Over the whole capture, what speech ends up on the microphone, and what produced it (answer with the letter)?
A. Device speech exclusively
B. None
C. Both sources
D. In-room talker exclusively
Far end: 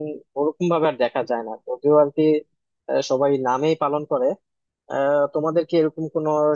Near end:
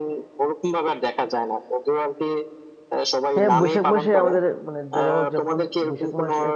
C